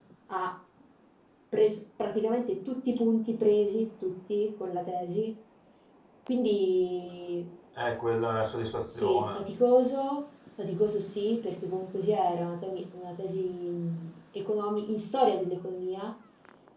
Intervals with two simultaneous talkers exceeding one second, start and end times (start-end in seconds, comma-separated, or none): none